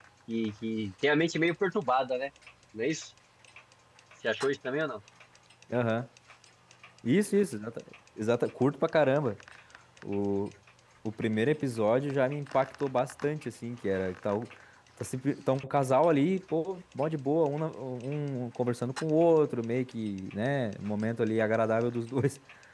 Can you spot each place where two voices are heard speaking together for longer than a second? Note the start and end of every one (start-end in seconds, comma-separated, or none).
none